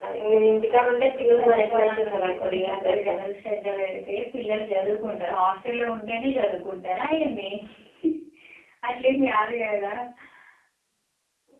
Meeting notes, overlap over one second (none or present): present